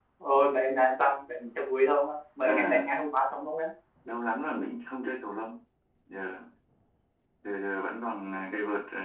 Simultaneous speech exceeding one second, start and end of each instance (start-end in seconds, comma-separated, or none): none